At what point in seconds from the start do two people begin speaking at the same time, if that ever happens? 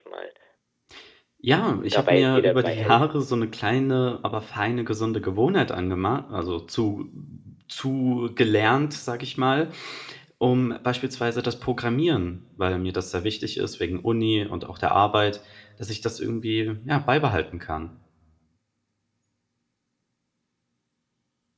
1.9 s

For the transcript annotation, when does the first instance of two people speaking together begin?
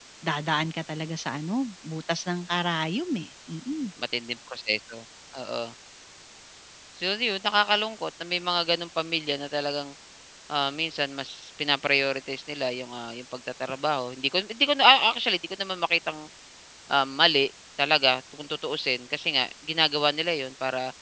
none

